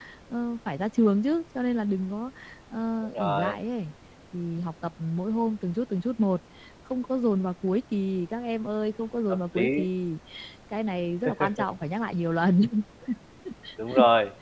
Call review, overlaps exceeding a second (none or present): none